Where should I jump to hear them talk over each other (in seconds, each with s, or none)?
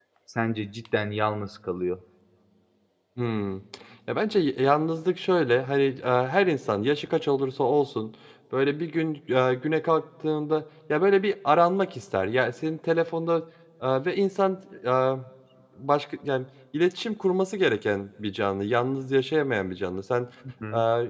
none